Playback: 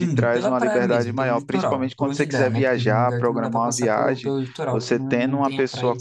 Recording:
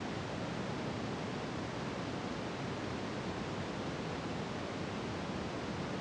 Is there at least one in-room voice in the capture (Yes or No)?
No